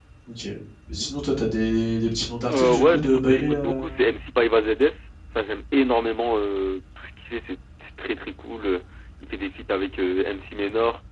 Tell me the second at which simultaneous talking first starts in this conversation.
2.5 s

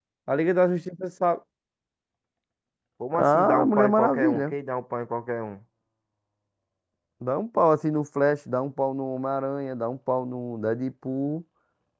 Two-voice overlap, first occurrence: 3.2 s

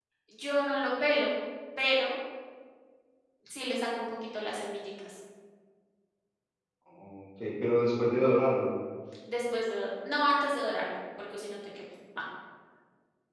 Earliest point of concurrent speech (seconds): none

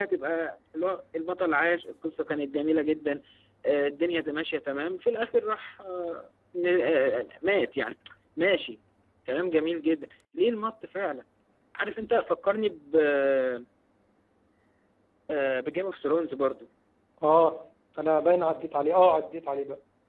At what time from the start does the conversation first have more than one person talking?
none

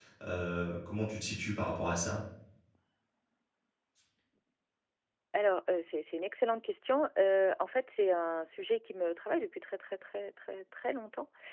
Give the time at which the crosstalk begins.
none

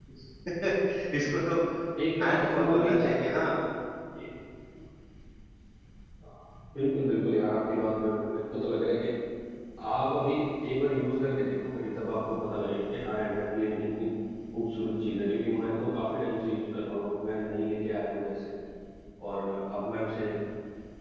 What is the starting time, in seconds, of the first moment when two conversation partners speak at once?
2.2 s

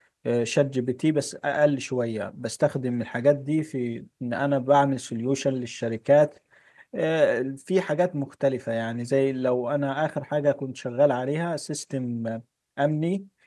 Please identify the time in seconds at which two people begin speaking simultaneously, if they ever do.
none

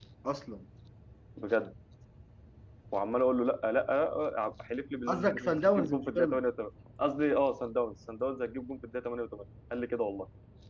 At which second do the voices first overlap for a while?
5.1 s

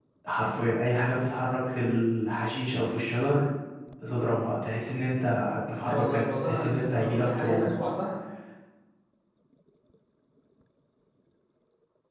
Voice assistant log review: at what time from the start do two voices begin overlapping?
5.8 s

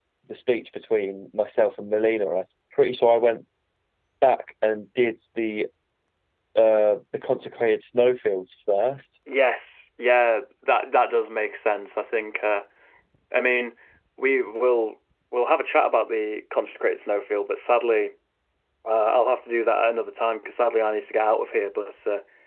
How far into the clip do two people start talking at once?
none

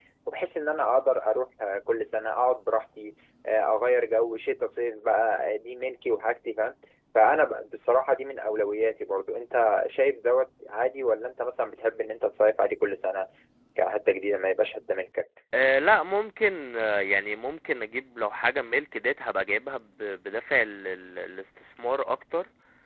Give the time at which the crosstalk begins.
none

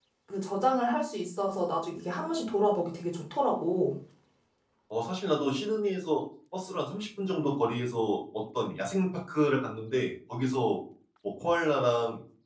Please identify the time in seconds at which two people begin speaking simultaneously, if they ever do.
none

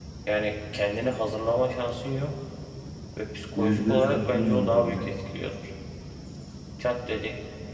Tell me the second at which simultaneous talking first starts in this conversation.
3.5 s

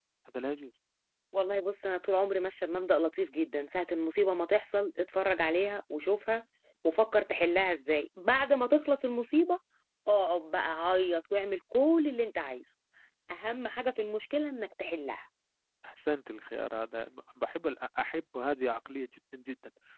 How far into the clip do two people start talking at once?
none

